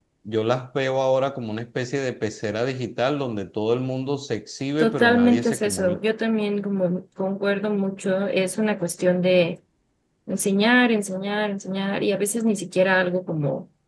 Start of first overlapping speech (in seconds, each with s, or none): 4.8 s